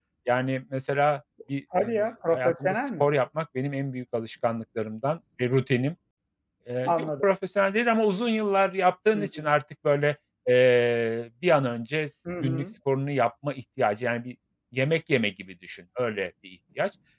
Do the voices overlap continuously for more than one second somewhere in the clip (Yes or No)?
Yes